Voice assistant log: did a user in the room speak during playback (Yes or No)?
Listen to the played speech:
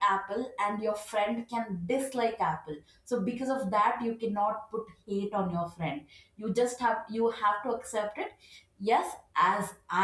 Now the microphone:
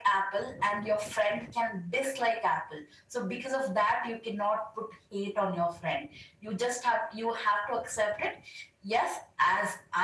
No